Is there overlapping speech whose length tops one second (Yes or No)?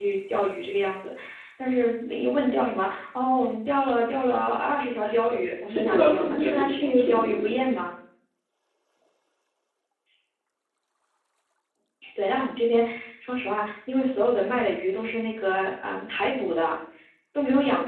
Yes